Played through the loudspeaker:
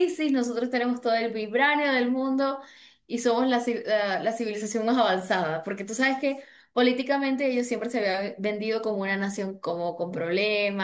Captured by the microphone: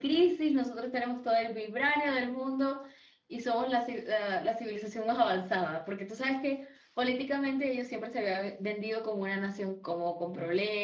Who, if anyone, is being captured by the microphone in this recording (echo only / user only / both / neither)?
echo only